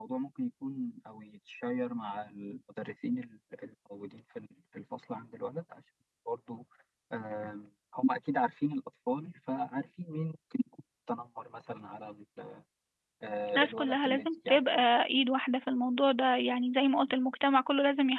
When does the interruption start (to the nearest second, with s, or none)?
14 s